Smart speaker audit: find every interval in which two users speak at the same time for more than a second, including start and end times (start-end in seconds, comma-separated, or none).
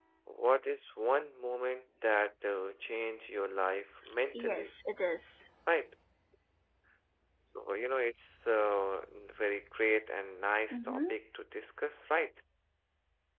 none